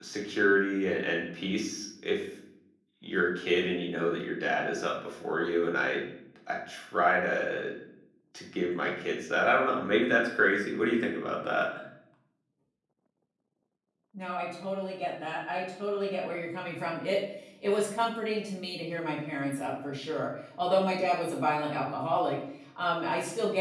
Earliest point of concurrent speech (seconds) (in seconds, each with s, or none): none